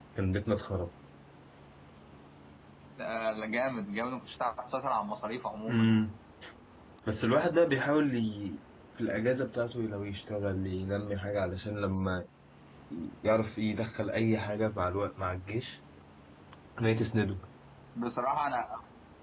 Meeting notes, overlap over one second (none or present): none